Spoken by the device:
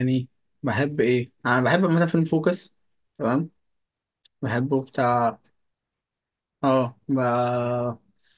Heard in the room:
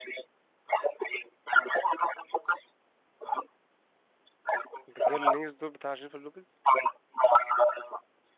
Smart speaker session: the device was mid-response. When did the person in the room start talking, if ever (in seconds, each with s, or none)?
4.9 s